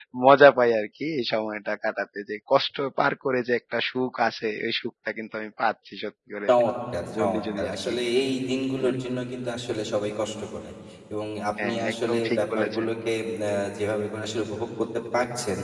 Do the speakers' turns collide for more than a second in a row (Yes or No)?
Yes